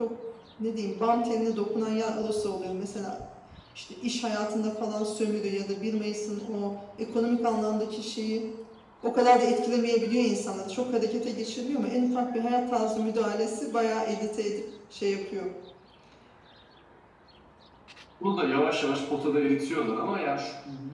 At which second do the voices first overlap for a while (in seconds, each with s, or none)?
none